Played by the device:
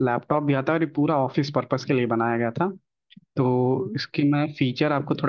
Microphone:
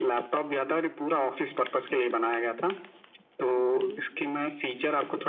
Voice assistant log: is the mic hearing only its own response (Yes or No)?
Yes